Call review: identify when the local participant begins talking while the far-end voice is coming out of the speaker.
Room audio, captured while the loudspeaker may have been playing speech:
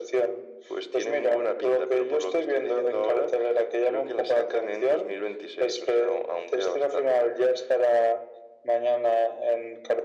none

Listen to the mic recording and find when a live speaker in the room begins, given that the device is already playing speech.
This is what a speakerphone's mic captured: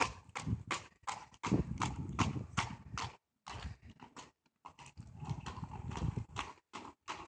none

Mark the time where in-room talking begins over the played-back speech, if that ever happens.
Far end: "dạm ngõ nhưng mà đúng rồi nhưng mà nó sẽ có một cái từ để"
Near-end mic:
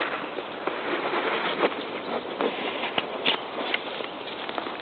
none

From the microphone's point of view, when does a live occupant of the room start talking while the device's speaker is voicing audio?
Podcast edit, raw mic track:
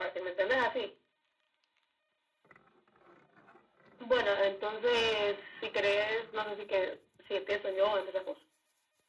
none

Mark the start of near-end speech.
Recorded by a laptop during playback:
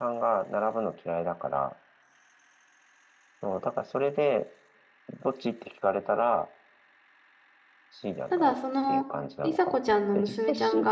8 s

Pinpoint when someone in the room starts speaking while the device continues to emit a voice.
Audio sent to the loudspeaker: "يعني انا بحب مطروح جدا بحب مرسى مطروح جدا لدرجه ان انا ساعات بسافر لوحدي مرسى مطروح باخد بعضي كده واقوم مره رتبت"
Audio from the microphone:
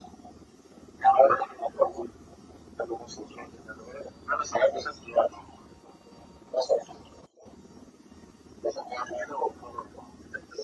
none

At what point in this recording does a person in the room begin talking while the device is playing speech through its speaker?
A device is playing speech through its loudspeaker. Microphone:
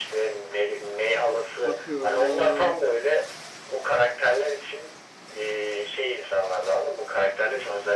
2 s

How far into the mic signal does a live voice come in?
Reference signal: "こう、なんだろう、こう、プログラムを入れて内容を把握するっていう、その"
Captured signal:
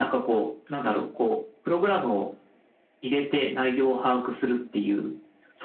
none

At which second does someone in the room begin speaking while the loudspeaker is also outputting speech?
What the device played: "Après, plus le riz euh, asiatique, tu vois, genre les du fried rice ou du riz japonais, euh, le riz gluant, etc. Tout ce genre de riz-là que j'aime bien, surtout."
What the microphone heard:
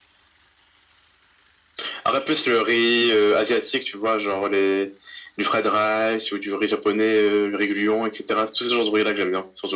none

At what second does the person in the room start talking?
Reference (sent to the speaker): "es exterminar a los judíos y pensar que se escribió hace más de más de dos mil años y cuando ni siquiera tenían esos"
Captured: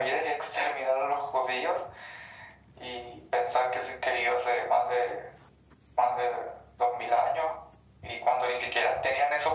none

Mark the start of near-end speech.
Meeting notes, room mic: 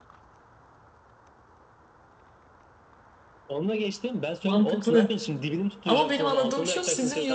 4 s

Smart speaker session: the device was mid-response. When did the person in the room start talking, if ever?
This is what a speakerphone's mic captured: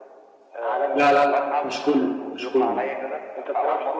1 s

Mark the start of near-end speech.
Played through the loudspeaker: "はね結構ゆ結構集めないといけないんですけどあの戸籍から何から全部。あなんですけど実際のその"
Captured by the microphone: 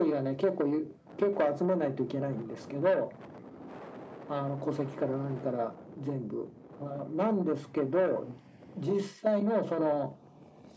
none

